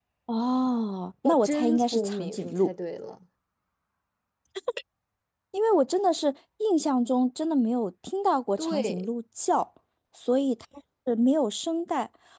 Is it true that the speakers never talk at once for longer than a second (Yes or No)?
No